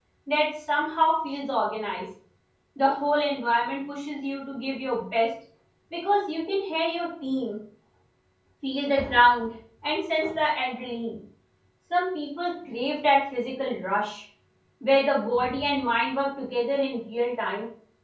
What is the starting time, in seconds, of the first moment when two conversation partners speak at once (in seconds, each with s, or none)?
none